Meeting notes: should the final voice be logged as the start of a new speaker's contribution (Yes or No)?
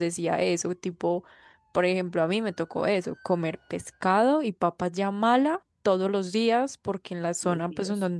No